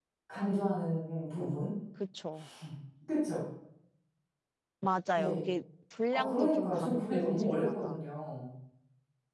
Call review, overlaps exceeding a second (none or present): present